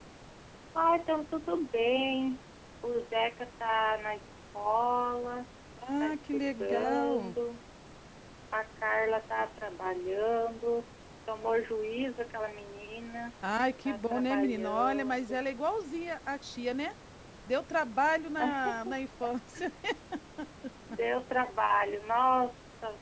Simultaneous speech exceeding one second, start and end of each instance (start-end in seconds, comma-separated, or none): 6.0-7.3, 13.9-15.4